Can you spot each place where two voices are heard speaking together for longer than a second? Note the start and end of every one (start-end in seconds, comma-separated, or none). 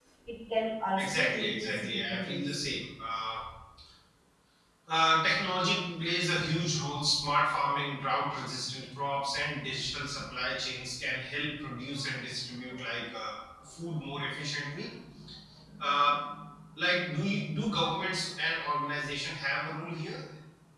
1.0-2.6